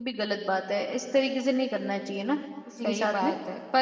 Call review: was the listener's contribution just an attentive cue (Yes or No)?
No